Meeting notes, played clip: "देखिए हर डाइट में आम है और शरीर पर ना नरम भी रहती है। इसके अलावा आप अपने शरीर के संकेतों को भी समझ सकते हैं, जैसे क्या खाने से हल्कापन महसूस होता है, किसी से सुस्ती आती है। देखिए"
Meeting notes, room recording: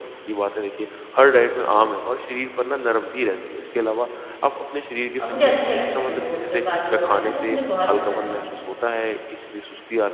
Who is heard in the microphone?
both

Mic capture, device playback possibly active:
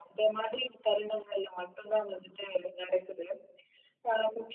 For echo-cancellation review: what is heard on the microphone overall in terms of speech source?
echo only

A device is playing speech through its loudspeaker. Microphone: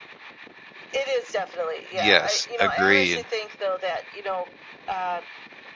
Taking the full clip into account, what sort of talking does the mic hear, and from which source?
both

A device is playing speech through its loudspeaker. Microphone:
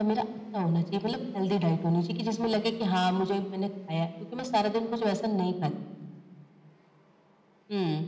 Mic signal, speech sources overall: echo only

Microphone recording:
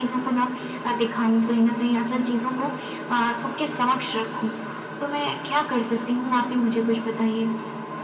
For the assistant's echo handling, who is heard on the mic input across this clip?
echo only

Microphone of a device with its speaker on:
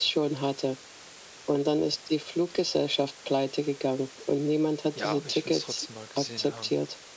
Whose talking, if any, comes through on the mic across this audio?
both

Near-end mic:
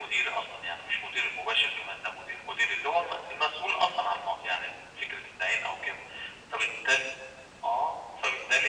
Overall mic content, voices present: echo only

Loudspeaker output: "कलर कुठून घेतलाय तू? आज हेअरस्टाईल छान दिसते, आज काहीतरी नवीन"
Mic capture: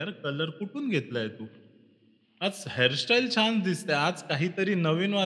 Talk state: echo only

